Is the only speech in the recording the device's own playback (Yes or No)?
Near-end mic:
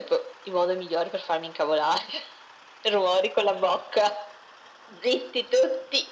Yes